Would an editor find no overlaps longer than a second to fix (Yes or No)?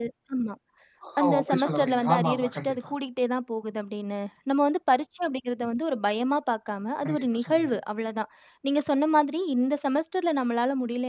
No